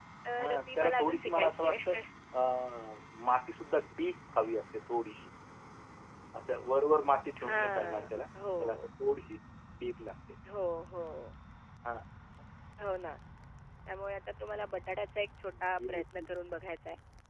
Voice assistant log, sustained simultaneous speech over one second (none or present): present